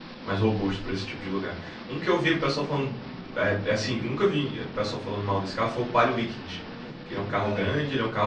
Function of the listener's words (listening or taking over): listening